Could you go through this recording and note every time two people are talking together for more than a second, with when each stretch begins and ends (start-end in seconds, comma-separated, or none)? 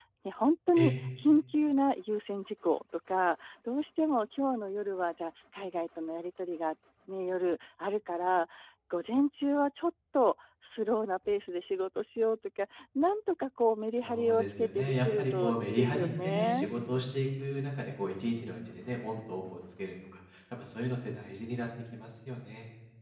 14.0-16.7